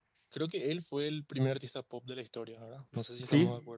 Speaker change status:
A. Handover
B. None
A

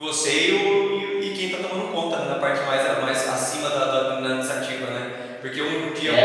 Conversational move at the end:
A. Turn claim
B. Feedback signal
B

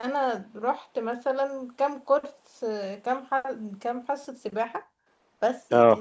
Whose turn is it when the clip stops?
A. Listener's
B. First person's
B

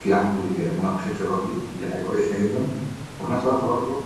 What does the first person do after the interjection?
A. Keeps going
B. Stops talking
A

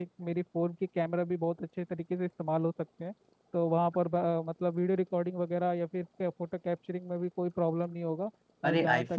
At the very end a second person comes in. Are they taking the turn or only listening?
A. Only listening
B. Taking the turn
B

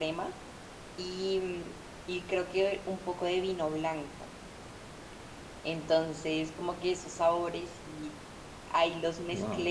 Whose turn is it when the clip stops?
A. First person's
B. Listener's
A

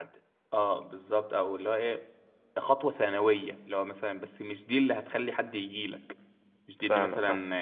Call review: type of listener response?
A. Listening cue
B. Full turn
A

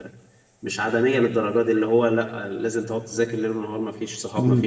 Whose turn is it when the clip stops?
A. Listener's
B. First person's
A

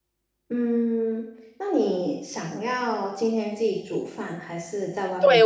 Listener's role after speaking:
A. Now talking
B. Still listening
A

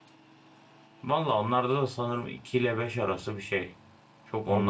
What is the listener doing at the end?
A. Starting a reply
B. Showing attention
A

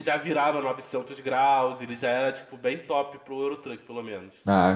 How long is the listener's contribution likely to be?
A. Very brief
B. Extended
B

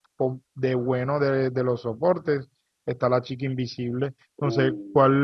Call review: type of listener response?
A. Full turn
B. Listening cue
B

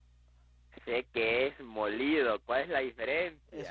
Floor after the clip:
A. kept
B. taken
B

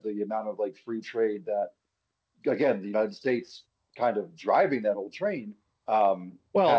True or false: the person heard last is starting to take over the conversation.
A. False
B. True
B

